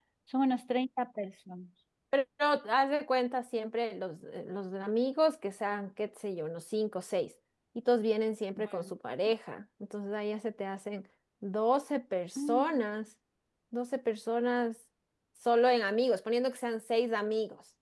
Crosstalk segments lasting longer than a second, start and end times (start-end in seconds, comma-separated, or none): none